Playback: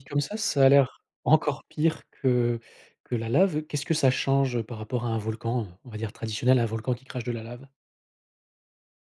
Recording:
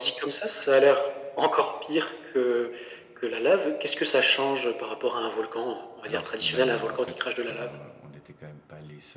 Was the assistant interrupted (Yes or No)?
Yes